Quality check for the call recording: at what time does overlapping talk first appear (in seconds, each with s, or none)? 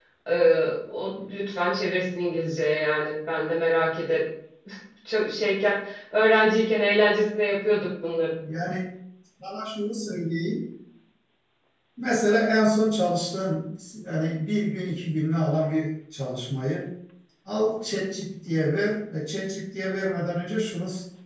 none